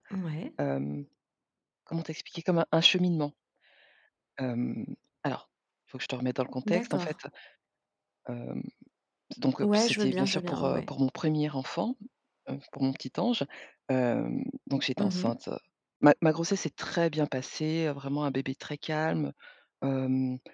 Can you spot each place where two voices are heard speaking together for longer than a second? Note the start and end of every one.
9.6-10.9

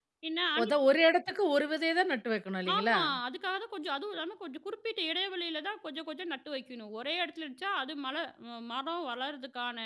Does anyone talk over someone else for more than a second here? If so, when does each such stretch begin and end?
none

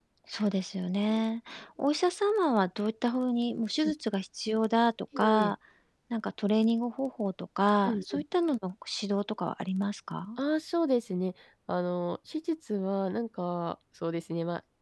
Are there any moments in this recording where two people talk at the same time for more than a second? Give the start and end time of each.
none

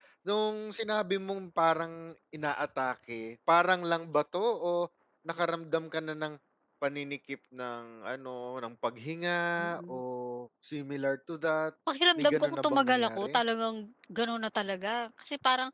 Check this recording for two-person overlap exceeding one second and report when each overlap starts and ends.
12.2-13.4

